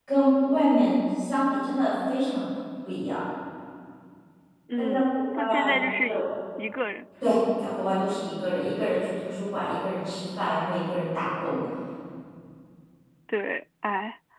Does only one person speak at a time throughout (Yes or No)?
No